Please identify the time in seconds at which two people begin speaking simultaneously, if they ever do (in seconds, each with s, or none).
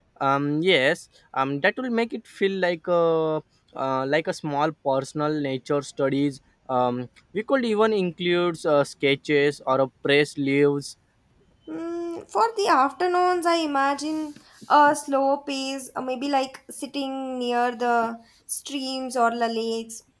none